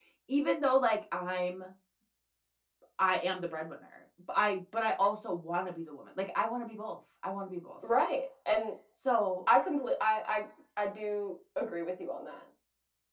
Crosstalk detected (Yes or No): No